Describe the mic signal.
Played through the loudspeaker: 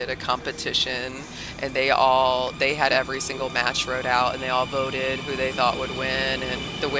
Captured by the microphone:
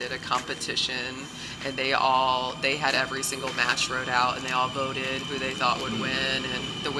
both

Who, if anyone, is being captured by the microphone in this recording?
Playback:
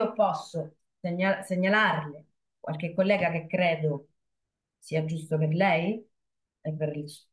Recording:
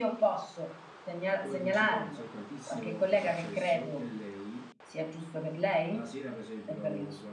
both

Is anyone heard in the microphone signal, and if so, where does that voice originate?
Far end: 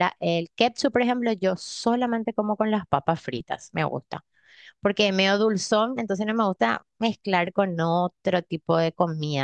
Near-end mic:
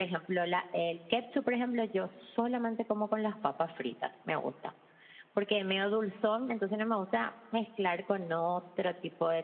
echo only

